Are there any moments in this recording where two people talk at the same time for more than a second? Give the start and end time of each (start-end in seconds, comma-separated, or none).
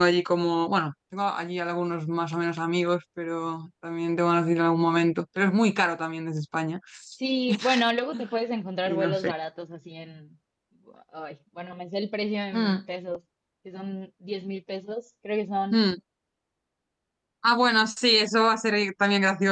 none